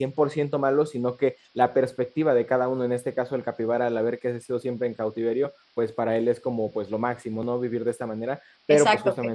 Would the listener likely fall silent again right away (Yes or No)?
No